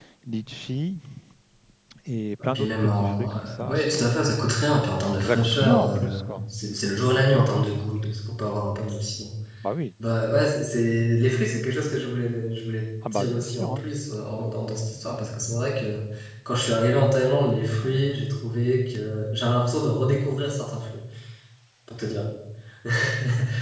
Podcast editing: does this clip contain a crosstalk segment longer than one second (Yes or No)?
Yes